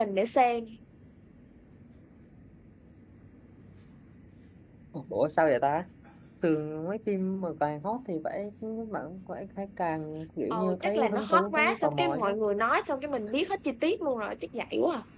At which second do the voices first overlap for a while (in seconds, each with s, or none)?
10.5 s